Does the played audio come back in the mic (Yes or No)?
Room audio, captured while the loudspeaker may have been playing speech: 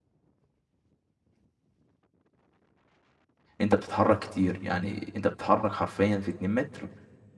No